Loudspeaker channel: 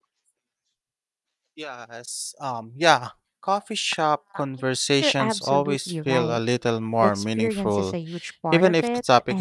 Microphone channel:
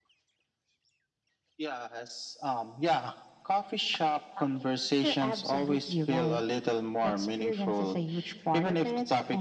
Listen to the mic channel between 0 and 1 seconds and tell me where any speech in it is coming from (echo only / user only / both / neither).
neither